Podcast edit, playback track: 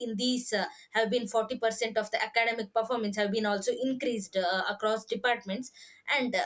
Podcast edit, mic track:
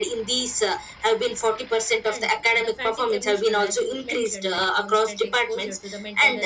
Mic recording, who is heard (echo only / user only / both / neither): both